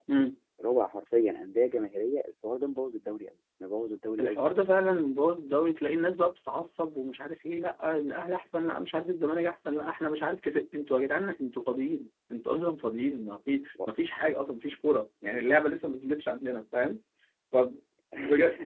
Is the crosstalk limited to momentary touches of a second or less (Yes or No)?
Yes